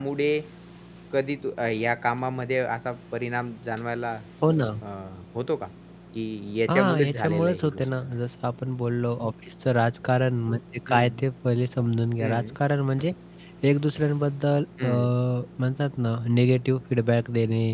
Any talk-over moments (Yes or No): Yes